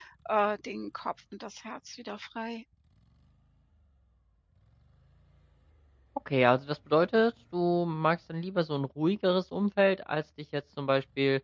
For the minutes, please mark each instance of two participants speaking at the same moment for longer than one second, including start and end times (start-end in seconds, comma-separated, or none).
none